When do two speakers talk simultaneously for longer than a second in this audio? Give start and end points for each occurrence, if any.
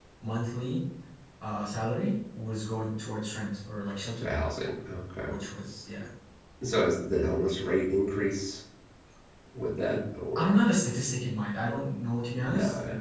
none

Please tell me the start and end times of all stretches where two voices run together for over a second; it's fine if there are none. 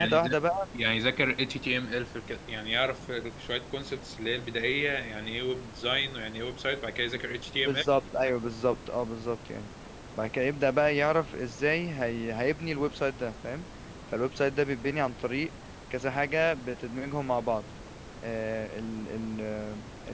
none

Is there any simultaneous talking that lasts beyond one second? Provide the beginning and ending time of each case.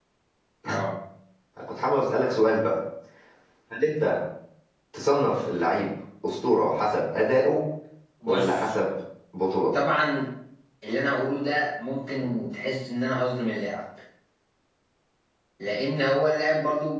none

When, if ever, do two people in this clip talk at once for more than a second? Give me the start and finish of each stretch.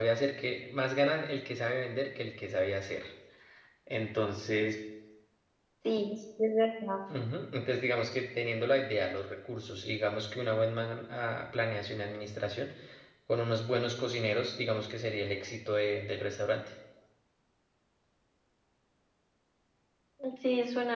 none

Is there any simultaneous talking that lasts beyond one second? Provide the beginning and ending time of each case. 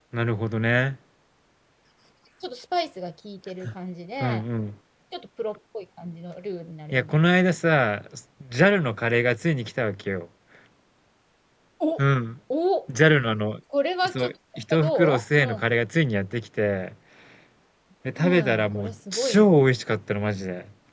14.1-15.6, 18.2-19.6

